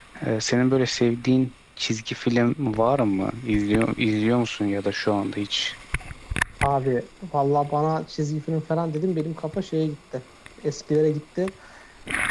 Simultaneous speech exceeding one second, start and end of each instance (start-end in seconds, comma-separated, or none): none